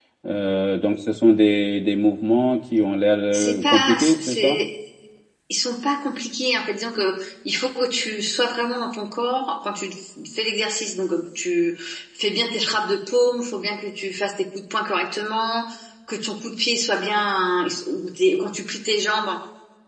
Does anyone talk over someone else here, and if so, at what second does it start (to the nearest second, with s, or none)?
3 s